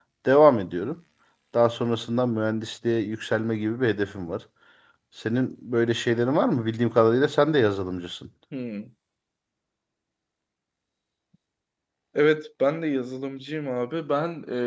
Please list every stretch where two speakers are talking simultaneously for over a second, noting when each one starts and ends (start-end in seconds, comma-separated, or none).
none